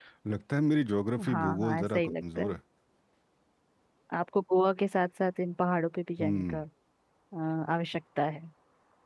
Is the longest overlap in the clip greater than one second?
Yes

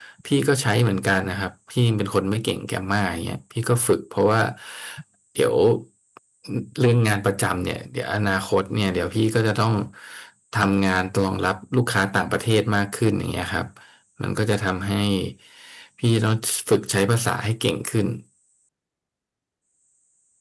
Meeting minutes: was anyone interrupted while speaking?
No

